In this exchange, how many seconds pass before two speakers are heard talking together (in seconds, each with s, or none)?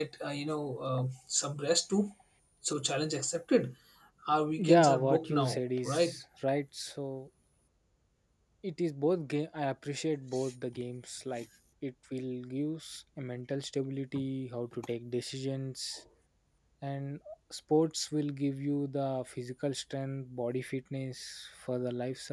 4.6 s